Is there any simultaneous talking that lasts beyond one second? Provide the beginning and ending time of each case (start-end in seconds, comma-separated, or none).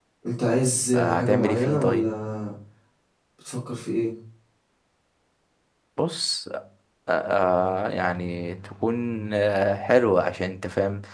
0.9-2.2